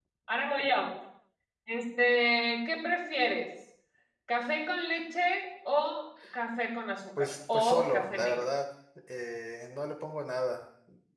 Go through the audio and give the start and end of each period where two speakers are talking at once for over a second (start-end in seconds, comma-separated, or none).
7.2-8.5